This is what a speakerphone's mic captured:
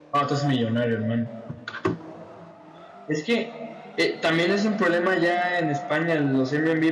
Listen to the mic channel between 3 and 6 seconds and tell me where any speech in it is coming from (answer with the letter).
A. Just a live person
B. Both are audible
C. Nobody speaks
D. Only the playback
D